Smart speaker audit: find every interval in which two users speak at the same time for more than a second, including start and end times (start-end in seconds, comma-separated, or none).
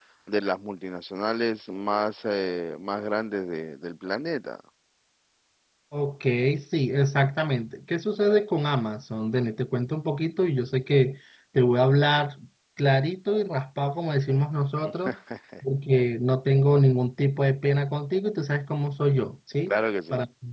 none